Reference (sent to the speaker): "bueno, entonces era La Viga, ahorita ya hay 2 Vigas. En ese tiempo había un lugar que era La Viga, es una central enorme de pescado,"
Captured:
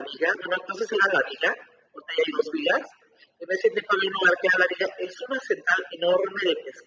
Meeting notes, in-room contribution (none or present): none